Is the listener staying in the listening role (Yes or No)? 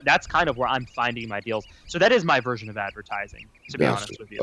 No